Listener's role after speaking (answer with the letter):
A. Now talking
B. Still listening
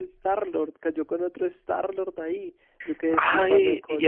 A